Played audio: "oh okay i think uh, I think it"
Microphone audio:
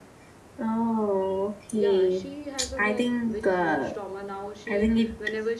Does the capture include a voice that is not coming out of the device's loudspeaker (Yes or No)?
Yes